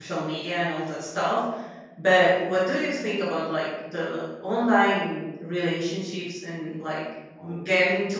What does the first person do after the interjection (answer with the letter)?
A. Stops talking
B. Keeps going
B